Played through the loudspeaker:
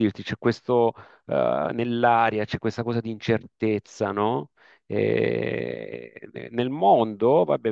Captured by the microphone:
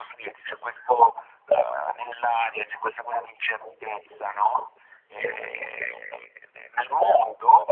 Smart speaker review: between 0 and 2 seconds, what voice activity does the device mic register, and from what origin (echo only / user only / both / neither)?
echo only